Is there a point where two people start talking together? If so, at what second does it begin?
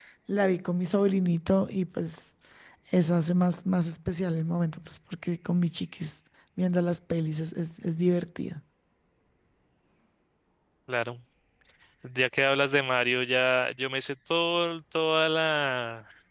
none

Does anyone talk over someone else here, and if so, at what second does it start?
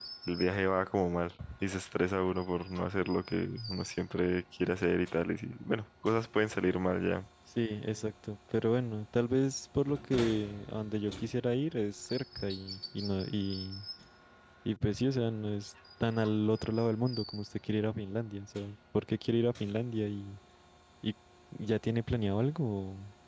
none

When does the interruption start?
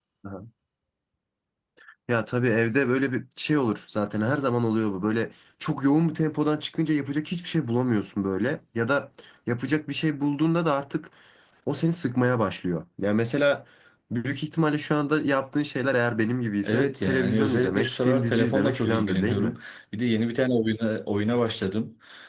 16.6 s

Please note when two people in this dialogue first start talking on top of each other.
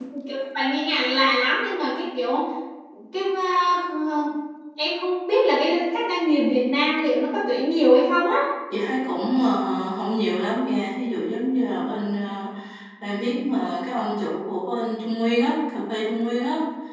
none

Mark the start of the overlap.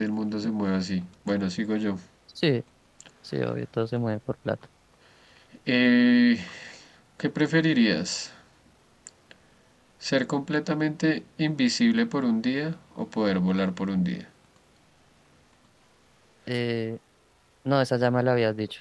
none

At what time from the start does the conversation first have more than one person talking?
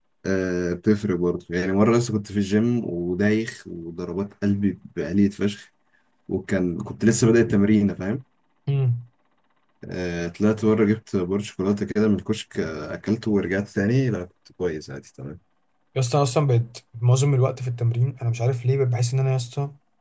none

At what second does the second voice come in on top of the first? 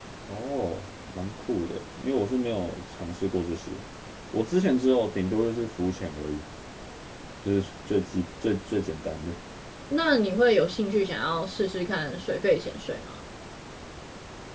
none

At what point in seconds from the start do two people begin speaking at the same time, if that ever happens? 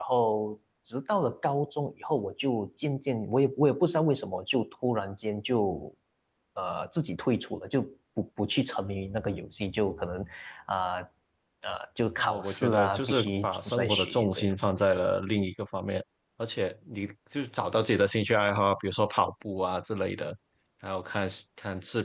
12.2 s

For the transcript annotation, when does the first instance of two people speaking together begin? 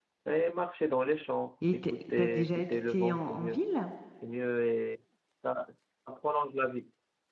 1.6 s

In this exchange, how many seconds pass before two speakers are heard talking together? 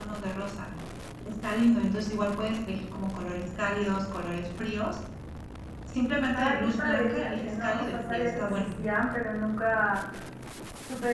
6.3 s

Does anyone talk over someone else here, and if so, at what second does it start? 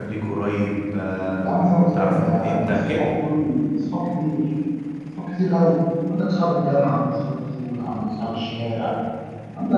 1.9 s

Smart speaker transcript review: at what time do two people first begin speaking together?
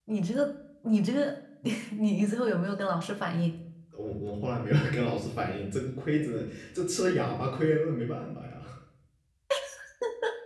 none

